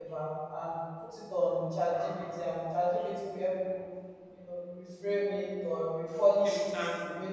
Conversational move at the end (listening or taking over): listening